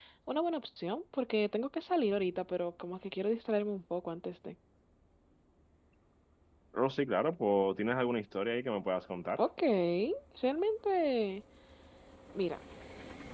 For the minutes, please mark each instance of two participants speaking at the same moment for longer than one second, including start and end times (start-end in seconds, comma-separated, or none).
none